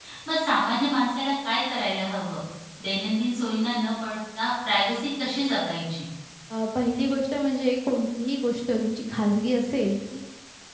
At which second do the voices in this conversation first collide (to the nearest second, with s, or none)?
none